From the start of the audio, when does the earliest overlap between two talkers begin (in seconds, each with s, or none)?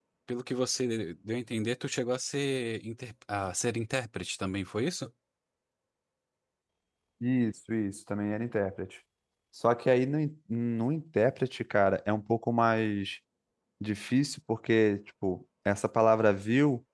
none